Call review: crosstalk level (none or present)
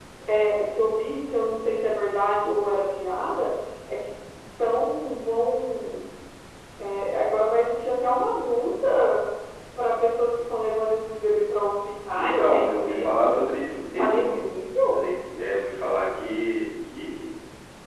present